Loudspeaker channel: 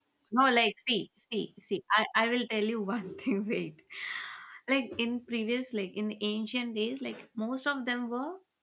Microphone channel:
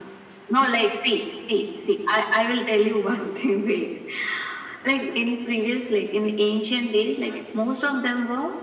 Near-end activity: none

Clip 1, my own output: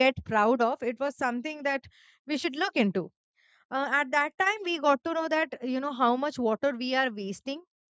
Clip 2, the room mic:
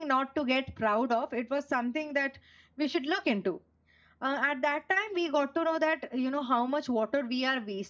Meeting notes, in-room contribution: none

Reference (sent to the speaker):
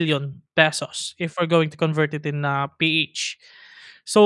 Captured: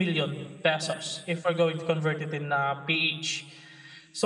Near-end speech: none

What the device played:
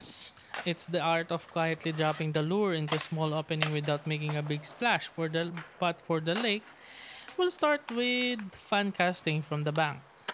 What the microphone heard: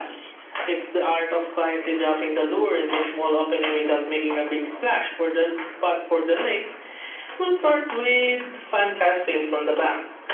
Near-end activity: none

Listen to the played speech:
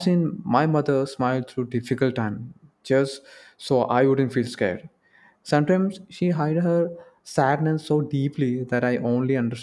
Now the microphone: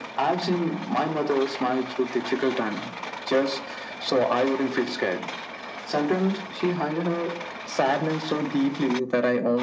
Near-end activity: none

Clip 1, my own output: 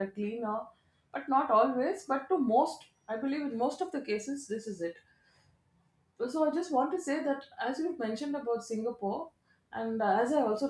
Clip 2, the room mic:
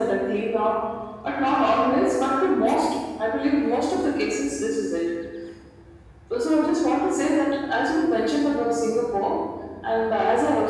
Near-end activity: none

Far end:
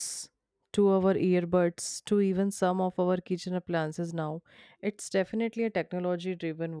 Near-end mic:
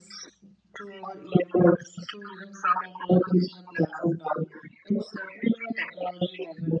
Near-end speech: none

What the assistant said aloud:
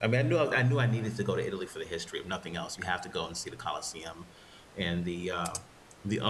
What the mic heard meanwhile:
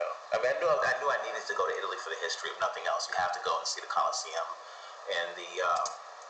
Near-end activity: none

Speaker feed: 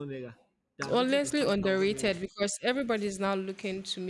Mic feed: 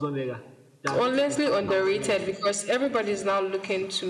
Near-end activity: none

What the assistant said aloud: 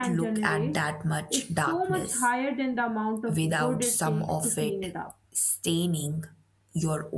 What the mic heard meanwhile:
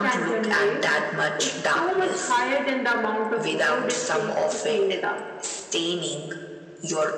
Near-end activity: none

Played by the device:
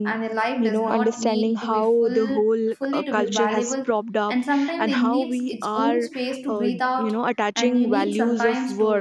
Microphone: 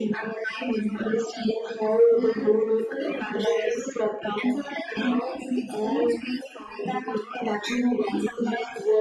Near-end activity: none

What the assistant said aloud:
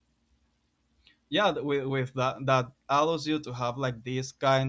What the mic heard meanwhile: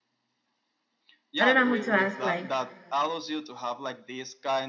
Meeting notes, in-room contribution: present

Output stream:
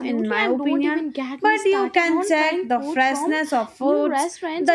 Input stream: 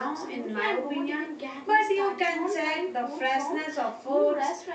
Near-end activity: none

